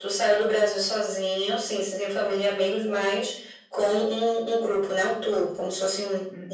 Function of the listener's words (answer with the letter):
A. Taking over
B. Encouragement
A